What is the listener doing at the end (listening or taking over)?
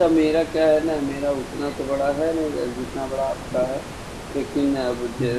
listening